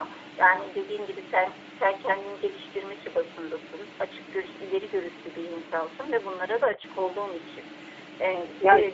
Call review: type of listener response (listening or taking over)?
listening